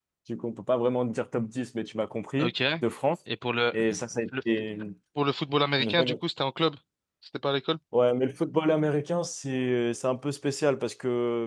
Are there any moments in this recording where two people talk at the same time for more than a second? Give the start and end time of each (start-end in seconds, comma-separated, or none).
none